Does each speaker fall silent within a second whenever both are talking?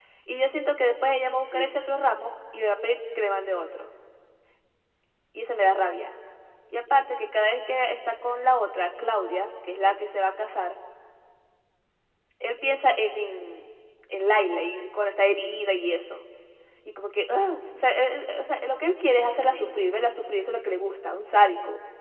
Yes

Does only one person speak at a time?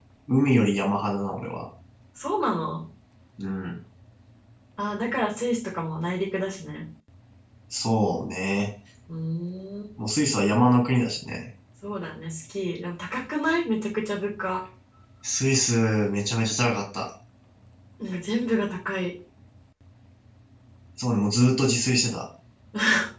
Yes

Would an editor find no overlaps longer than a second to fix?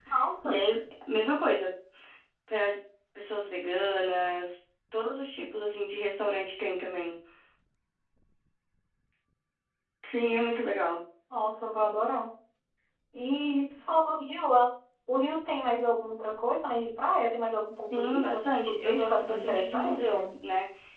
No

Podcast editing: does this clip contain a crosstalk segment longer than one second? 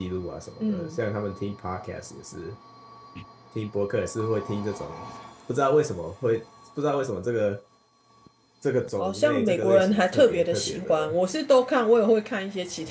Yes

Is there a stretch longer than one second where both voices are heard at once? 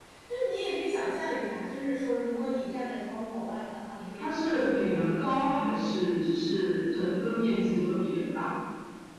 Yes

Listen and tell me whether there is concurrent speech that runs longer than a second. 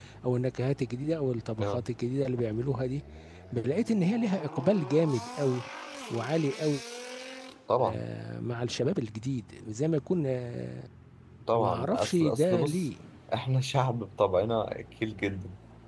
Yes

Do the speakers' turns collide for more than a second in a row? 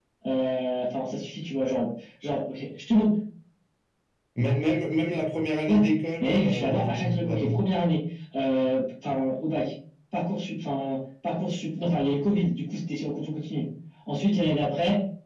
Yes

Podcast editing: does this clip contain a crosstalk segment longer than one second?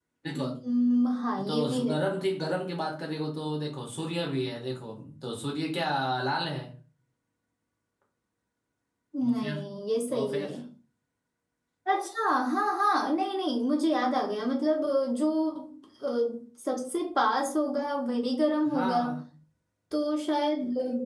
No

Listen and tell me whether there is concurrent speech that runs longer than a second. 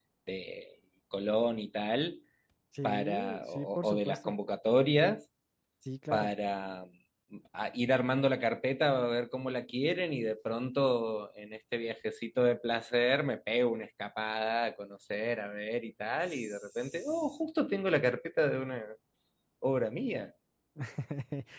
Yes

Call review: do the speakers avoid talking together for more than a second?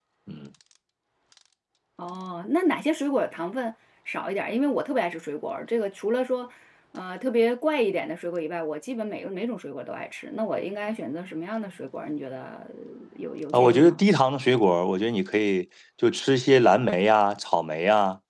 Yes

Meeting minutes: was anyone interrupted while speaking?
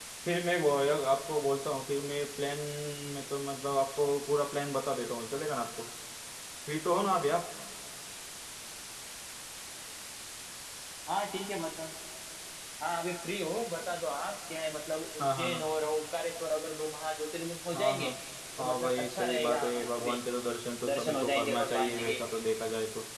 Yes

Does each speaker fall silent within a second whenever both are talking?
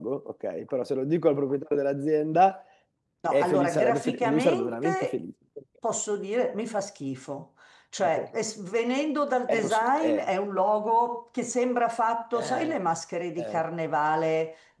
No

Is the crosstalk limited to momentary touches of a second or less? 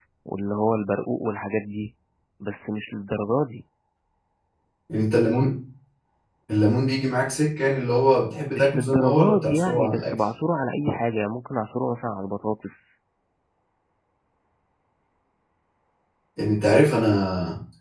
No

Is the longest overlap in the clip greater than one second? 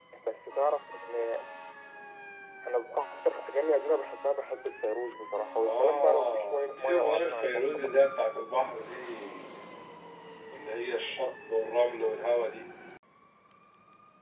Yes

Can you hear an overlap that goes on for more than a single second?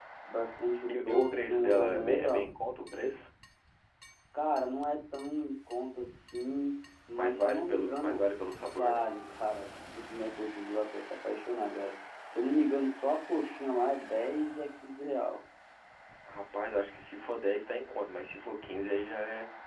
Yes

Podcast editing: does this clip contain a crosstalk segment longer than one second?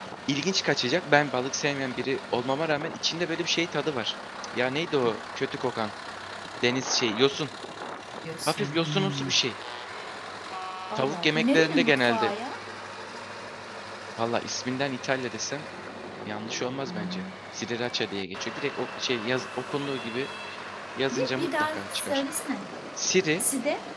Yes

